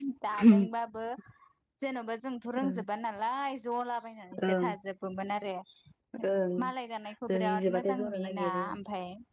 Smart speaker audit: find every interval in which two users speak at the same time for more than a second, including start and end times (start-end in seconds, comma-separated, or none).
7.3-8.6